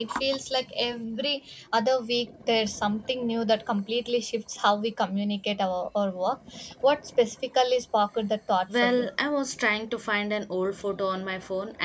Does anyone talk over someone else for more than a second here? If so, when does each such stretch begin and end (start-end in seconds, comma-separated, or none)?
none